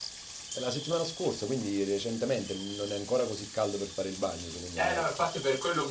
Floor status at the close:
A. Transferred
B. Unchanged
A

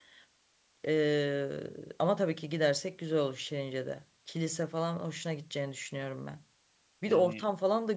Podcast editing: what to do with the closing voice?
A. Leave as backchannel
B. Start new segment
A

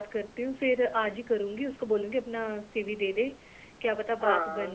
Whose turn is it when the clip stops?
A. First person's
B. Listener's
A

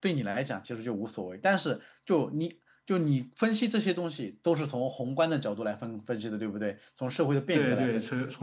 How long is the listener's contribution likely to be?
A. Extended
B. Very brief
A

